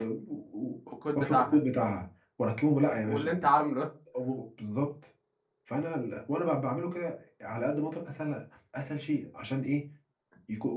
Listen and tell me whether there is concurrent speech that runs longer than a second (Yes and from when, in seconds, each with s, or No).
No